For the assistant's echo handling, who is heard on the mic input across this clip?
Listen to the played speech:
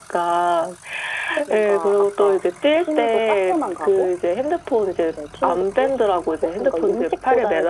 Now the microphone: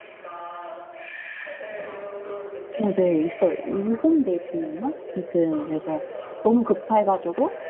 both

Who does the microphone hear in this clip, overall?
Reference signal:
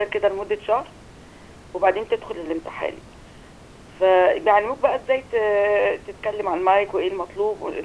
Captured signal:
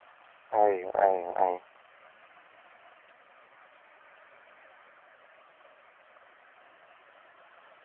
user only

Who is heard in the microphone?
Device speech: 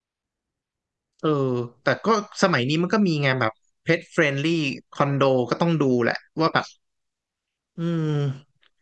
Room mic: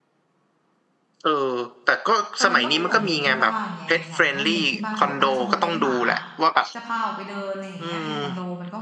both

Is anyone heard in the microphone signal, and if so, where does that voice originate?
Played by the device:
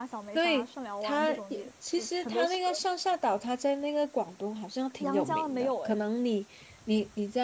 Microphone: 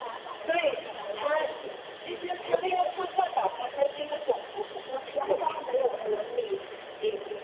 echo only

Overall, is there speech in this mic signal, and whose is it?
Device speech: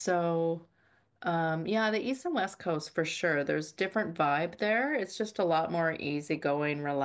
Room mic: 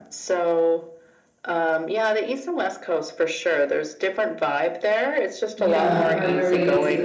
both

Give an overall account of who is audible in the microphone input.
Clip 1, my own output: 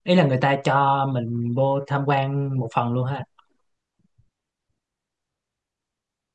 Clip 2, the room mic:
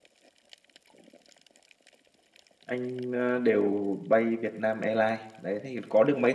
user only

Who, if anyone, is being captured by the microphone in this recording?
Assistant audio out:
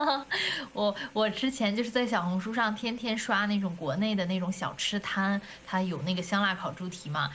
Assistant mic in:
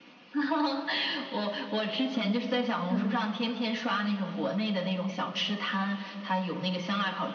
both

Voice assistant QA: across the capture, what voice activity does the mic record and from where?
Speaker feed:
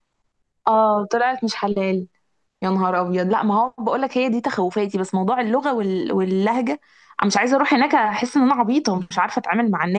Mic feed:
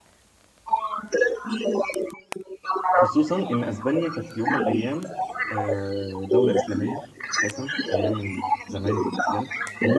both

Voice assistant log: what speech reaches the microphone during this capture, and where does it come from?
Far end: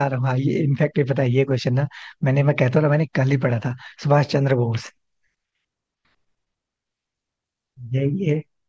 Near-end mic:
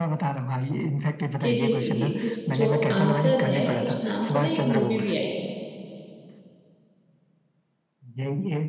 both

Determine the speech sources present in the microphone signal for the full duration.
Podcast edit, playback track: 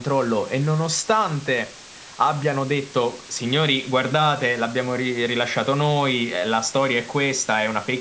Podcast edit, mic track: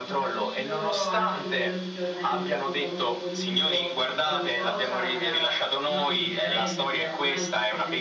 both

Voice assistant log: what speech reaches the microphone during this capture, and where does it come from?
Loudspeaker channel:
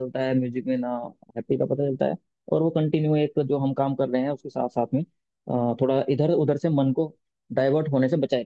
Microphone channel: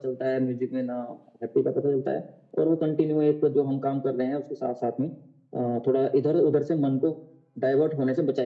echo only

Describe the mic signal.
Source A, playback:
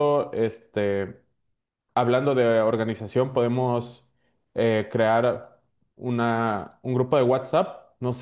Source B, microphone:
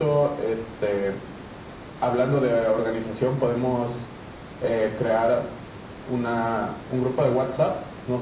echo only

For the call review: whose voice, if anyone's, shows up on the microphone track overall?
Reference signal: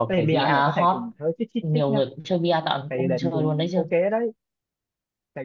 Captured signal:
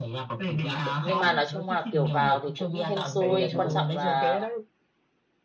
both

